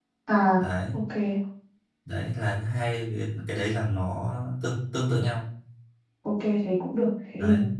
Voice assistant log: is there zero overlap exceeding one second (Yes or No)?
Yes